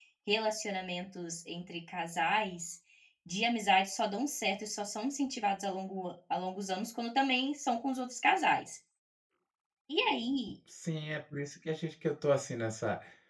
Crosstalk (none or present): none